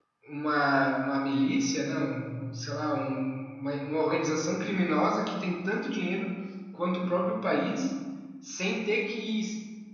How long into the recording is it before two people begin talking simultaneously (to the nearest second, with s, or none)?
none